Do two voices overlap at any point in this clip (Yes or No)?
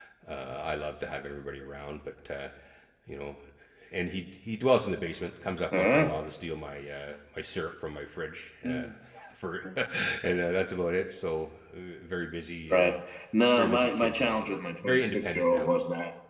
Yes